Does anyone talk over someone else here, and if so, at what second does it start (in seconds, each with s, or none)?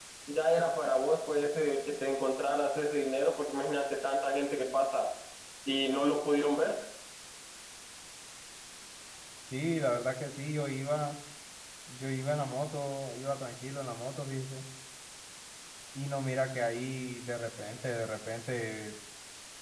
none